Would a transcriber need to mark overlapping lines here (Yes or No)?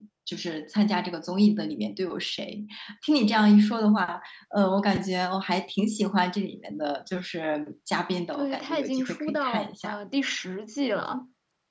Yes